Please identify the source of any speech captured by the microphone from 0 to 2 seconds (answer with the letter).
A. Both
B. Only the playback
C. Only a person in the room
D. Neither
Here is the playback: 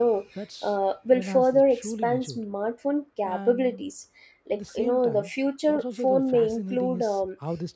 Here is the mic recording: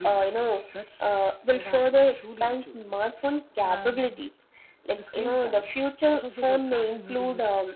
B